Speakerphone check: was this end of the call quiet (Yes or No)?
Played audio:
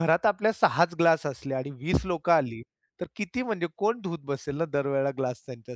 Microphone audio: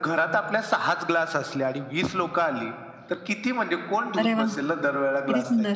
No